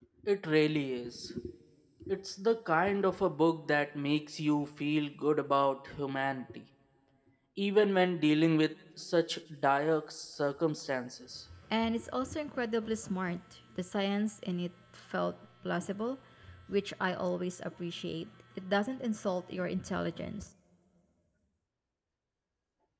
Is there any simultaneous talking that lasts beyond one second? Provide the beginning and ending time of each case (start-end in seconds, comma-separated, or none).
none